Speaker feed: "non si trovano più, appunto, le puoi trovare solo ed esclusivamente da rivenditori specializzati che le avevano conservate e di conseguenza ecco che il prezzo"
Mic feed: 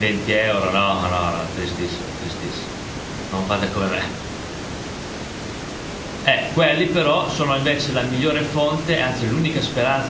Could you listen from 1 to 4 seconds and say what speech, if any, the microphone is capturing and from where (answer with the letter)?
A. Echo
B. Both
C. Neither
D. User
D